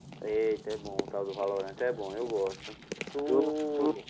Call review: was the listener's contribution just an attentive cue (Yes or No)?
No